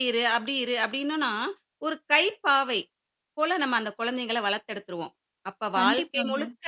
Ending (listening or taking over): listening